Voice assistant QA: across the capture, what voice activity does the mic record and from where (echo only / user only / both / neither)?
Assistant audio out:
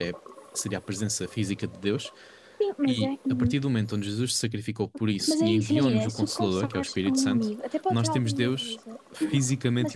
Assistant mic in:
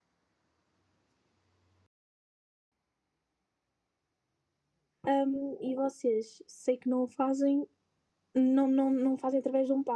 user only